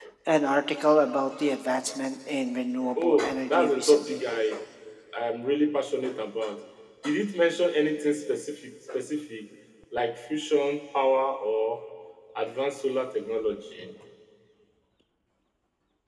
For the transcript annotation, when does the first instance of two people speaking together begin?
3 s

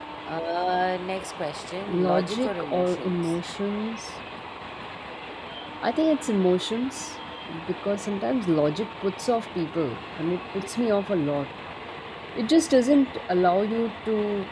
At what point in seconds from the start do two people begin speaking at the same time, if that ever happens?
2 s

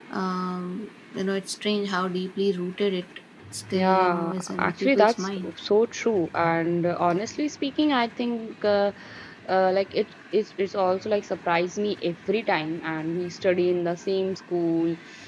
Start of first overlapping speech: 4 s

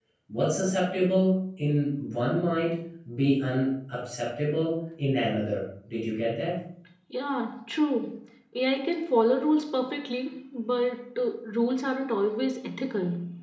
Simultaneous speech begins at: none

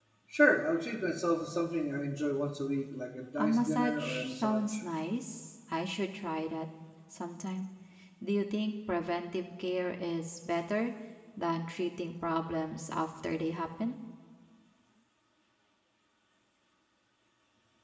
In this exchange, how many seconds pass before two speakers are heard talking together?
3 s

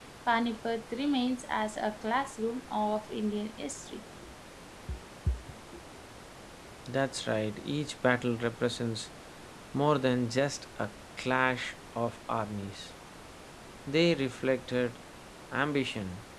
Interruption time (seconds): none

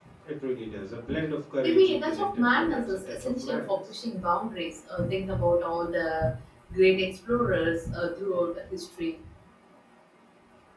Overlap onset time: 2 s

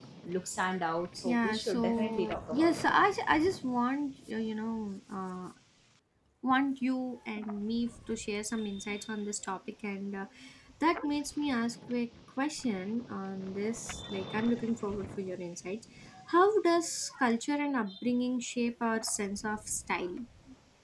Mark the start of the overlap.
1 s

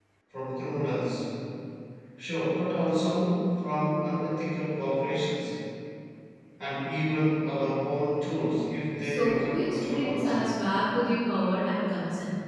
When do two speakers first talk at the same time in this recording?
9 s

